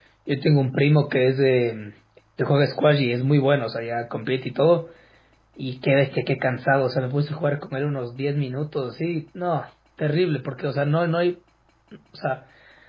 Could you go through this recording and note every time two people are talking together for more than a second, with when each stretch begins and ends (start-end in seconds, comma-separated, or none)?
none